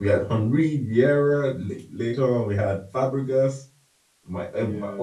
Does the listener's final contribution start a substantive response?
No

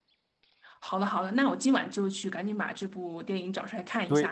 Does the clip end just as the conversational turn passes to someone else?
Yes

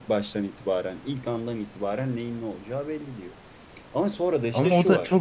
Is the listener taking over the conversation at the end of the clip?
Yes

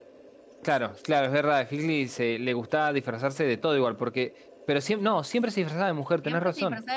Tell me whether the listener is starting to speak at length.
Yes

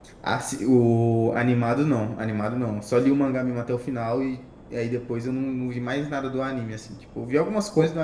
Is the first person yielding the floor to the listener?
No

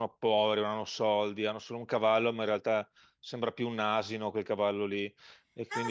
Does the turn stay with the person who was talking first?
No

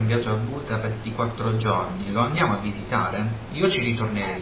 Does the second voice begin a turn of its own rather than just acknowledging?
Yes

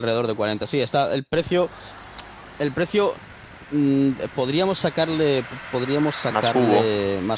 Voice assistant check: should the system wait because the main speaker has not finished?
Yes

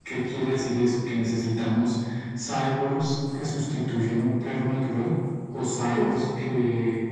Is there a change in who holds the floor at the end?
No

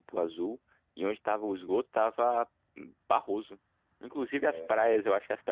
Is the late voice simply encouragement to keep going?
Yes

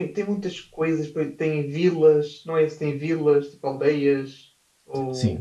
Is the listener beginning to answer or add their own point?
Yes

